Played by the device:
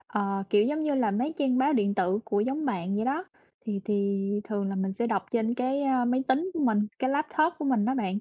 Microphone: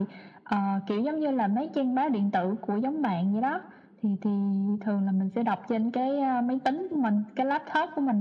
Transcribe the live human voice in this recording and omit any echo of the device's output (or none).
none